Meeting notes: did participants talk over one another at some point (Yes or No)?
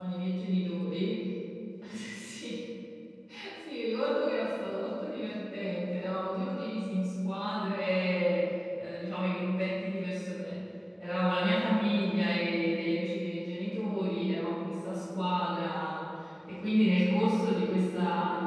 No